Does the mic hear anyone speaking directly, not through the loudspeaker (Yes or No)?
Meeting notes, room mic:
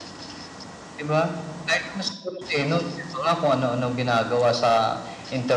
No